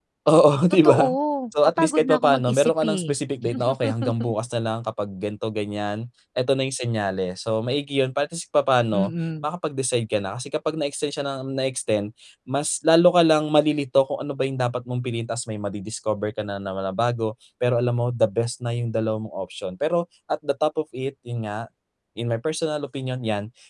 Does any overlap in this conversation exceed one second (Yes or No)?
Yes